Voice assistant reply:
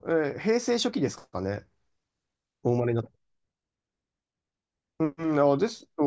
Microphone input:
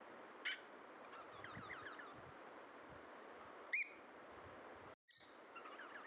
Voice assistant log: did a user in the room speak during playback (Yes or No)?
No